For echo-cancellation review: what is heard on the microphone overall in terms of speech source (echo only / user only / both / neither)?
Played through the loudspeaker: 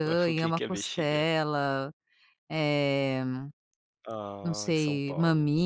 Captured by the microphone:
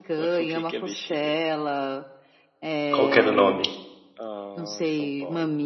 both